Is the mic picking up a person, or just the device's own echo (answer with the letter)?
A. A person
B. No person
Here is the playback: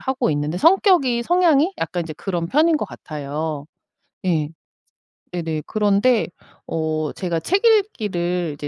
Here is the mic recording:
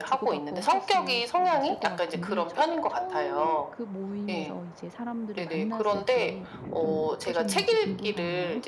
A